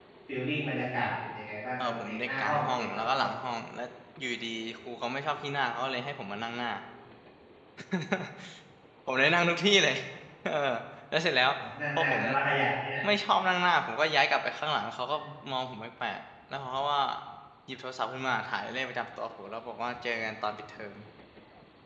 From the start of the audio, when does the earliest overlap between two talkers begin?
1.8 s

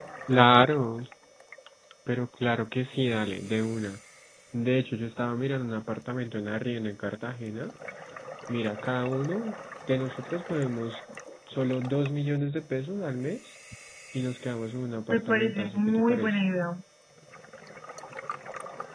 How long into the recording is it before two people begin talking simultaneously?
15.1 s

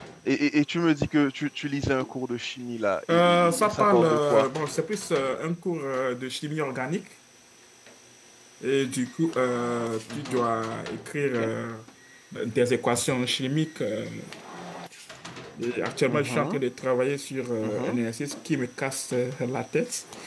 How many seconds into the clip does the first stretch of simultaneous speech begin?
3.1 s

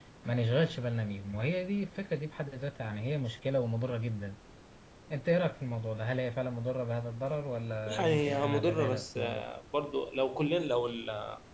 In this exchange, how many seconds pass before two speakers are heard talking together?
7.9 s

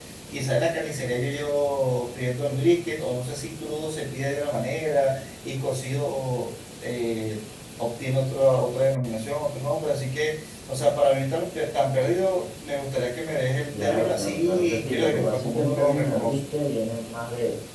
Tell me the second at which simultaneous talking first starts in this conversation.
13.7 s

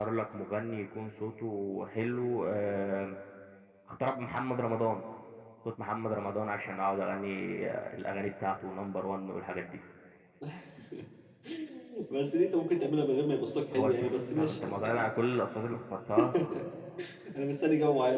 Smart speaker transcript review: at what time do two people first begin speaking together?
13.7 s

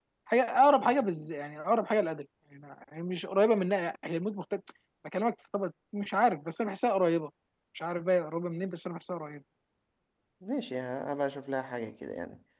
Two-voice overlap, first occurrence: none

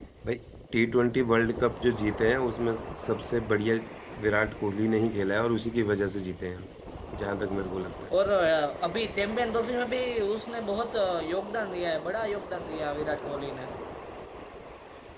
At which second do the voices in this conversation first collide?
none

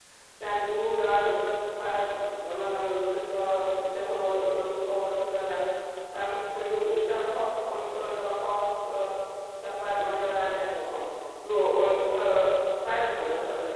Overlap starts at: none

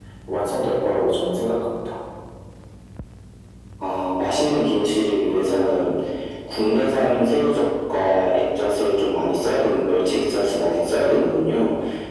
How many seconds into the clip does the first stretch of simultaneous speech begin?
none

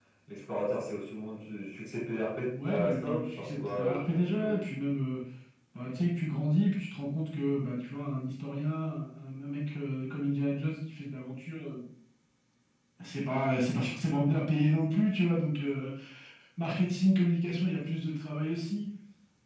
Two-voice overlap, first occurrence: 2.5 s

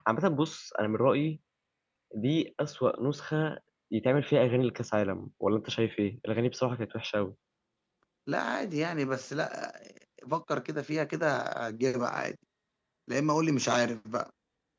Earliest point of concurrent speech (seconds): none

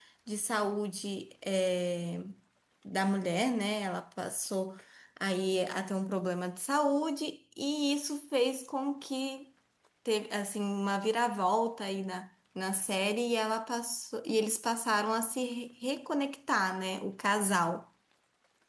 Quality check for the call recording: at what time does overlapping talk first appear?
none

